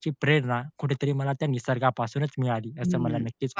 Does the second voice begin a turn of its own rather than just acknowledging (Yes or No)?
Yes